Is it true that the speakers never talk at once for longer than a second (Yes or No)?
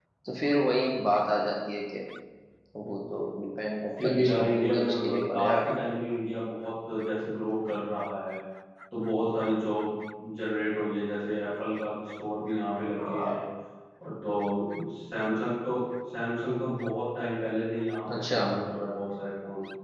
No